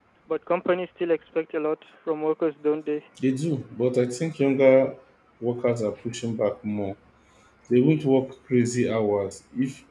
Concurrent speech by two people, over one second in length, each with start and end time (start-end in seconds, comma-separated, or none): none